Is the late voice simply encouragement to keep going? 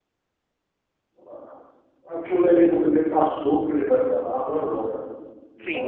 Yes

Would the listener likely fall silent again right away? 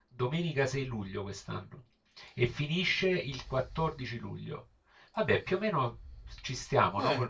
No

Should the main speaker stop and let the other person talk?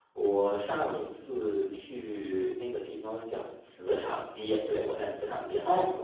Yes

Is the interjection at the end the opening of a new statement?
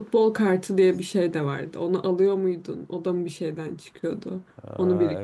Yes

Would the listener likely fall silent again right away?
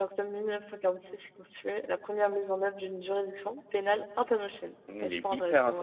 No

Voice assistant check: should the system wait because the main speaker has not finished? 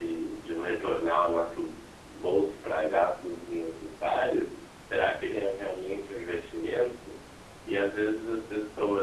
Yes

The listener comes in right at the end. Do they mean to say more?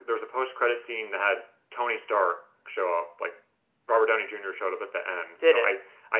No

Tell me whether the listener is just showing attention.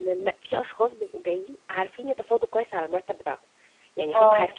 Yes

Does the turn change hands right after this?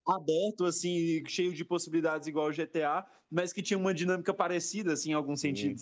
Yes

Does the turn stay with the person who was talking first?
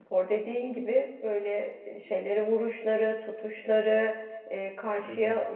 Yes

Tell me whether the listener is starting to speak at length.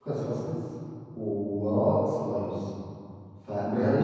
Yes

